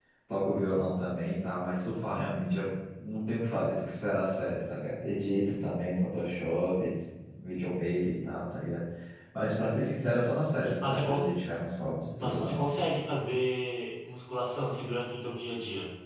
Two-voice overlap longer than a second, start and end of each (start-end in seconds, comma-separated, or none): none